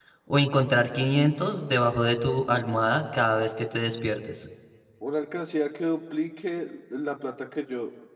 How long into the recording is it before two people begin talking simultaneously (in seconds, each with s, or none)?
none